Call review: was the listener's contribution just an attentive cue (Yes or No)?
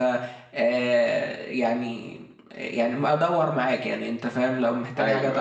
Yes